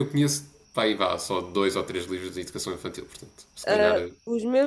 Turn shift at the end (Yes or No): Yes